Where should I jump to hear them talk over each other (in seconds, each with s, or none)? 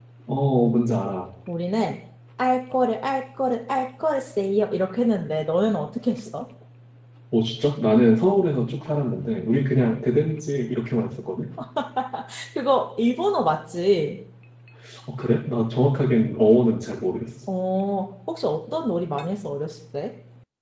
none